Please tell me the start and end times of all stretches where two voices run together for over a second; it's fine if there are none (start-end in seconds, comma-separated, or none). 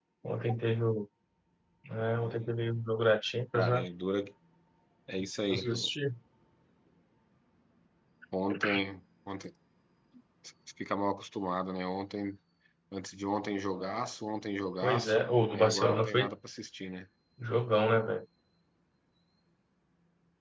14.8-16.2